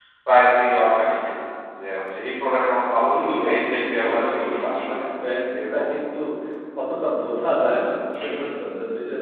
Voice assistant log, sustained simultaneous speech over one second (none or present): present